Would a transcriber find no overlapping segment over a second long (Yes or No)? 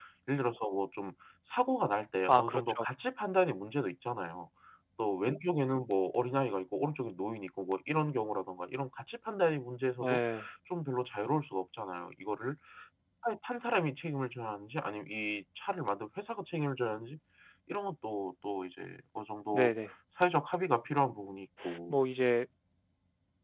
Yes